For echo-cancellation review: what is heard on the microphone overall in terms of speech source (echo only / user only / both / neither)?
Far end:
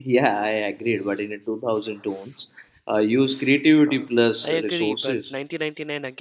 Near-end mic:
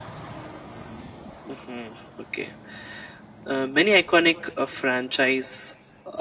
user only